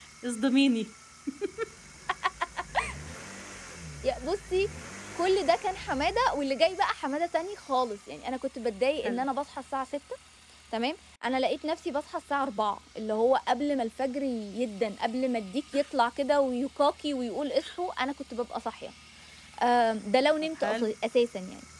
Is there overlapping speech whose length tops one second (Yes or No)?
No